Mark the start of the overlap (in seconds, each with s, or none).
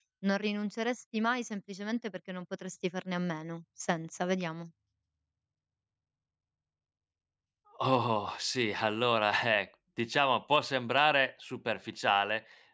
none